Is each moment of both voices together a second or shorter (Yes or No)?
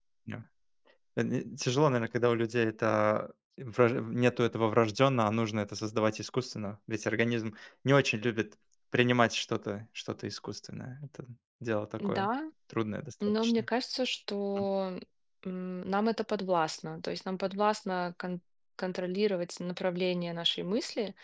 Yes